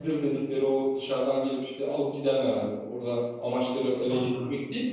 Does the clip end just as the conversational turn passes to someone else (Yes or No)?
No